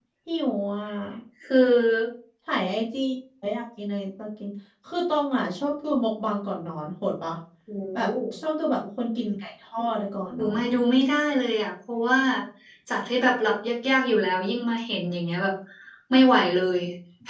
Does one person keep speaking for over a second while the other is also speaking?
No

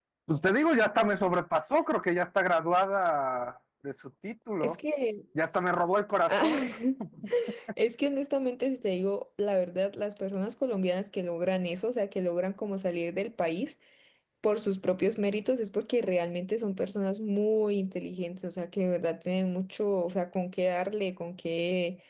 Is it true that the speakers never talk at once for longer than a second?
Yes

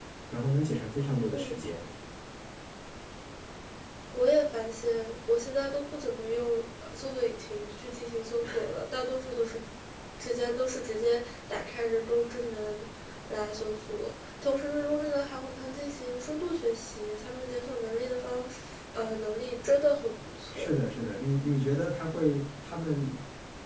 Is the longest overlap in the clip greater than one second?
No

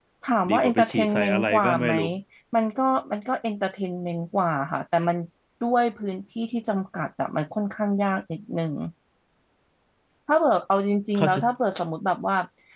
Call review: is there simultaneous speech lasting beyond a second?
Yes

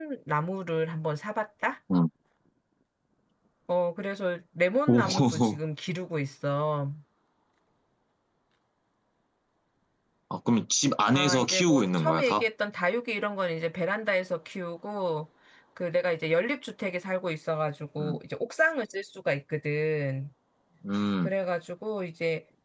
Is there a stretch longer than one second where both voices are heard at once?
Yes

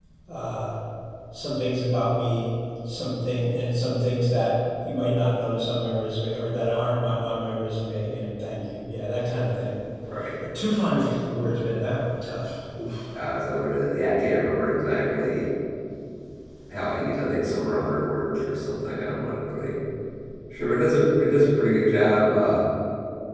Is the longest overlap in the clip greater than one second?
No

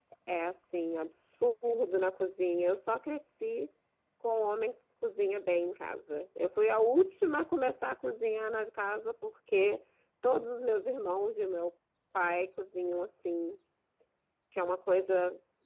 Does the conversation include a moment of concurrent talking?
No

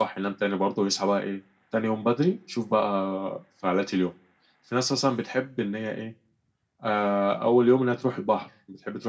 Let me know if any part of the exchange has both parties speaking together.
No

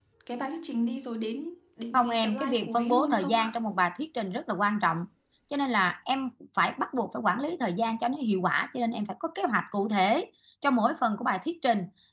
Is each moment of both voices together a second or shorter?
No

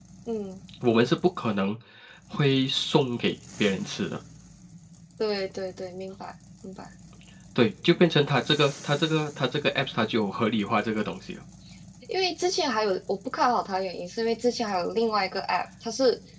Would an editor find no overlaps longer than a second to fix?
Yes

